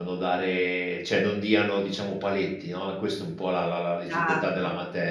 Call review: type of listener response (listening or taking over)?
taking over